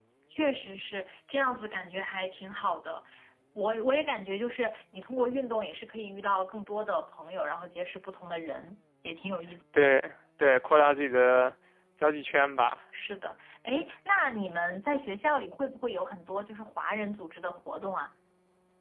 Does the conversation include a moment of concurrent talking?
No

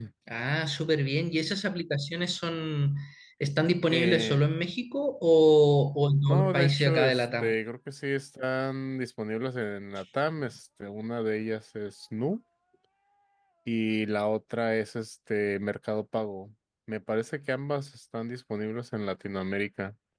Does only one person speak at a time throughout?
No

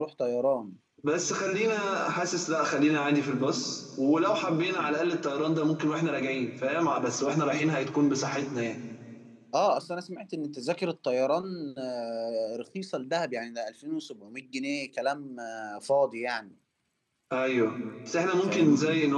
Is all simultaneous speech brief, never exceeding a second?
Yes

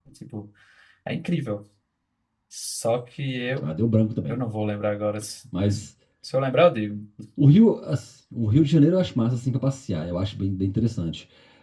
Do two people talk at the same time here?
No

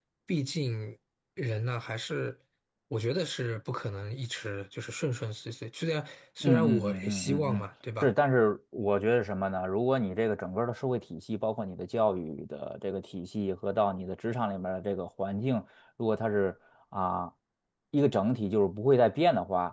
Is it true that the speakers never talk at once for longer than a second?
No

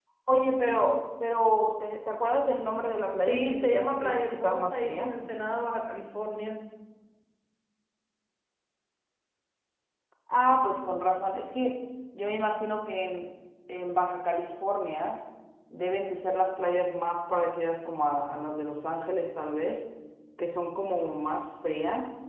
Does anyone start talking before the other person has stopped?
Yes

